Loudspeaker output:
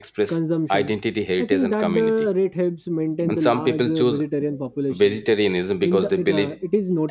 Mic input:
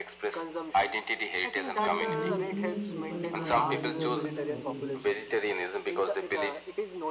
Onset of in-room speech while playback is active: 1.8 s

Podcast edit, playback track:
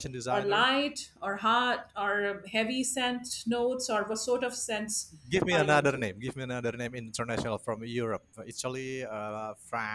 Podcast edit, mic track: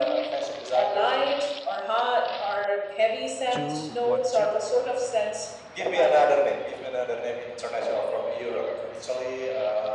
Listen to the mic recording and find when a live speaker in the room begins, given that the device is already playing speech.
3.5 s

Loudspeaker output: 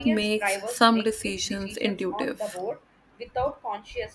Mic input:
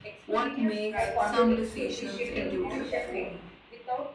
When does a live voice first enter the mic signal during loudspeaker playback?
1.0 s

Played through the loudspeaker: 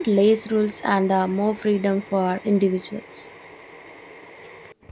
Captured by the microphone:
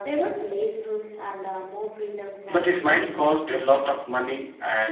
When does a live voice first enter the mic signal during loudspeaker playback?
2.5 s

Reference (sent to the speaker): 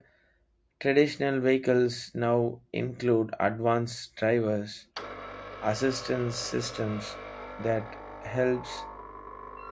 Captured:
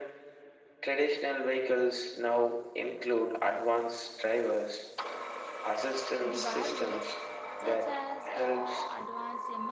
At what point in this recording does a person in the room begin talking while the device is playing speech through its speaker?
6.3 s

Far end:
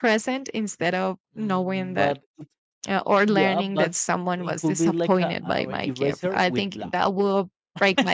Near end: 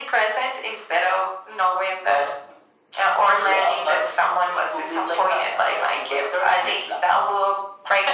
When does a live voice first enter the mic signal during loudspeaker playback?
none

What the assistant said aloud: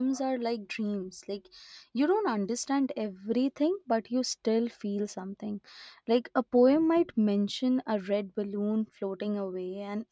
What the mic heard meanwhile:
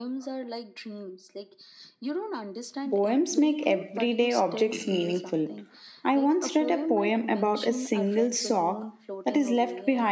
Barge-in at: 2.9 s

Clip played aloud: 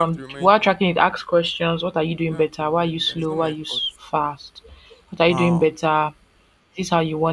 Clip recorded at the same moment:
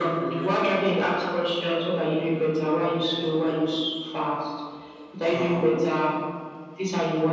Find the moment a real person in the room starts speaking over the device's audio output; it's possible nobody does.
none

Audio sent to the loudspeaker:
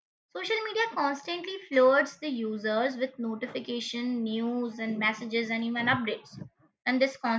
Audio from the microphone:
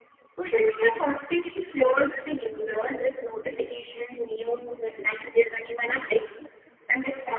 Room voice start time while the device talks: none

